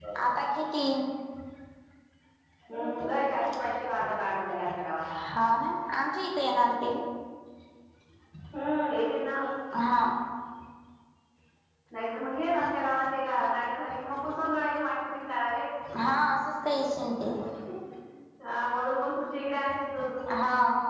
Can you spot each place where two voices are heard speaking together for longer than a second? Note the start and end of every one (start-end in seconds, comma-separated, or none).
none